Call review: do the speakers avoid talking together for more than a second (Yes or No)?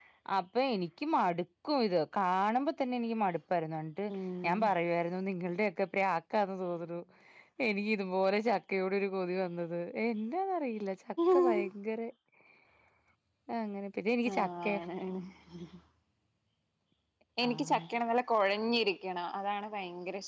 Yes